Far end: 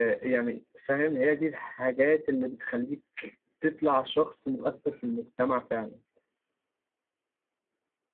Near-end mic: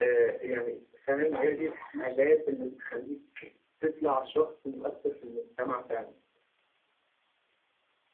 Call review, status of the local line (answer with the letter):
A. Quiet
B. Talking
B